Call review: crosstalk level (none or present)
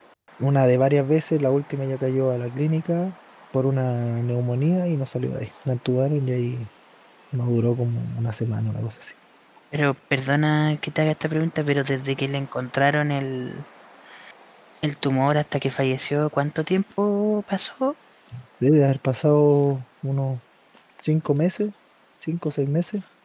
none